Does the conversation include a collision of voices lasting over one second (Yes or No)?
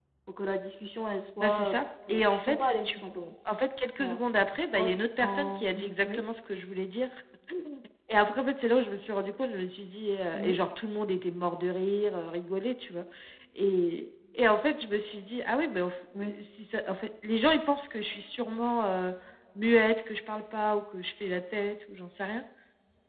Yes